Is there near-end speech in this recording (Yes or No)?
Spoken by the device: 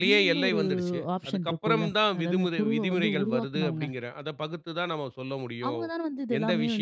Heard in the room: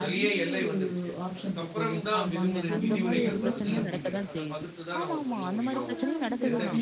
Yes